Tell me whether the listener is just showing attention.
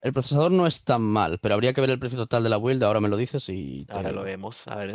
No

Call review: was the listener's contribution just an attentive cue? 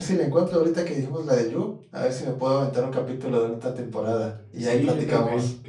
No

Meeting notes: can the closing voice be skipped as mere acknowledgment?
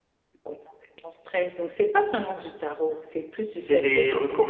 No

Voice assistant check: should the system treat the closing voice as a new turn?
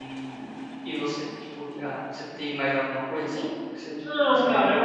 Yes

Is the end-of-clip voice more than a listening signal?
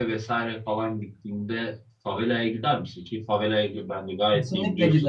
Yes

